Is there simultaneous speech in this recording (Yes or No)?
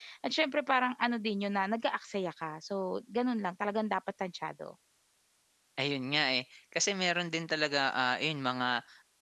No